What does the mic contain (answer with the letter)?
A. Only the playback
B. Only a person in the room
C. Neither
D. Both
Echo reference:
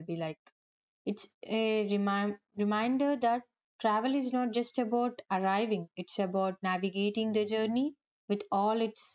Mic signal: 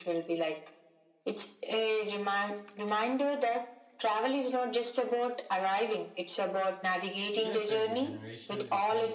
D